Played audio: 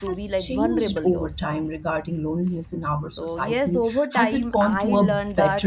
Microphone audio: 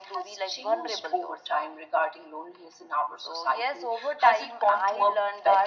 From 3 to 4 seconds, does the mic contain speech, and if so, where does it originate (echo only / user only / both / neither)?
echo only